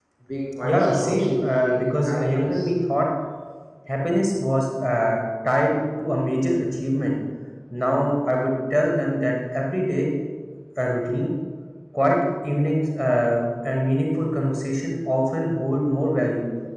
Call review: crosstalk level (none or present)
present